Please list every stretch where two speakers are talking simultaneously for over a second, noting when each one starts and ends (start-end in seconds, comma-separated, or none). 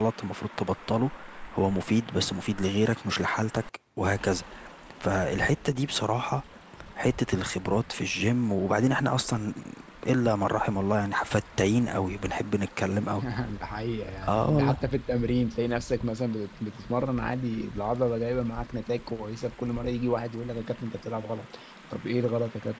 none